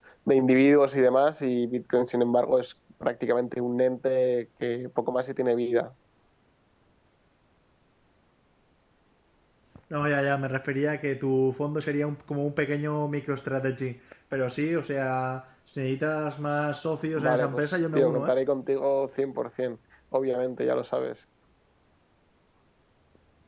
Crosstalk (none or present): present